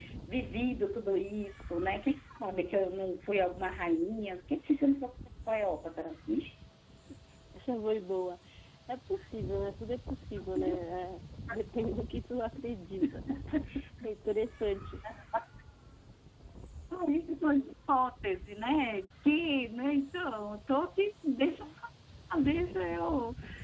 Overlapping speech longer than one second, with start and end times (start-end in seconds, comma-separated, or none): none